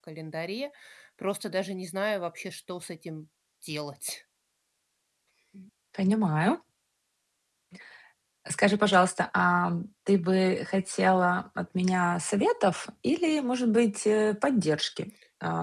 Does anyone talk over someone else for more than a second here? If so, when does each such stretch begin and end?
none

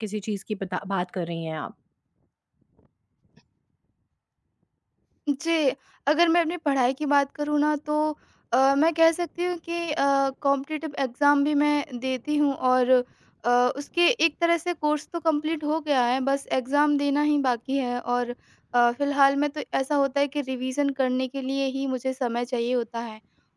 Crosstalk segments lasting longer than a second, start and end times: none

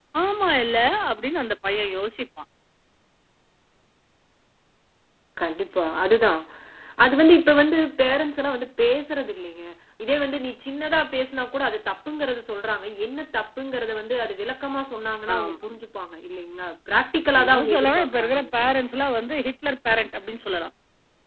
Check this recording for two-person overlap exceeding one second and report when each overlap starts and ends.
17.4-18.9

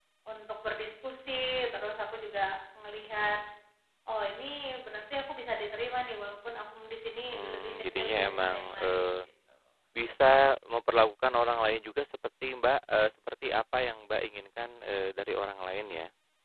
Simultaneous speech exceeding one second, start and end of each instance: 7.3-9.2

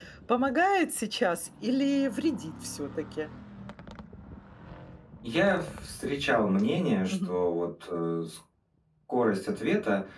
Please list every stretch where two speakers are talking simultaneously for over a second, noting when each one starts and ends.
none

